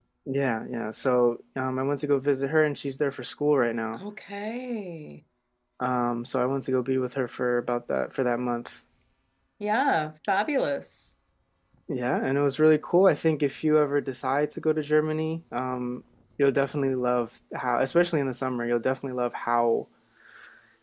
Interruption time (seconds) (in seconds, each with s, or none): none